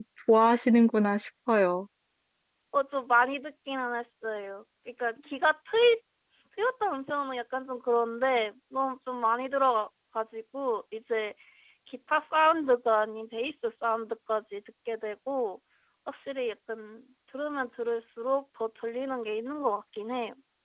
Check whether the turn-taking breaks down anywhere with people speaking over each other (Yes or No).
No